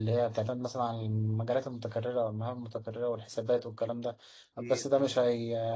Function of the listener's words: listening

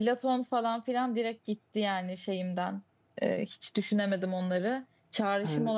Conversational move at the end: listening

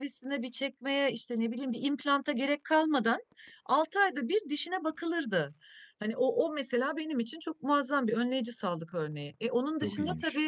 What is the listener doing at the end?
listening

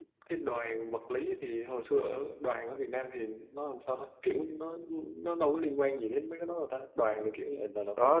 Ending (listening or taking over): taking over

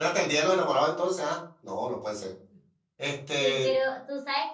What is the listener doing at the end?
taking over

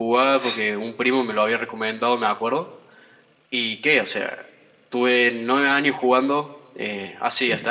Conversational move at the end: listening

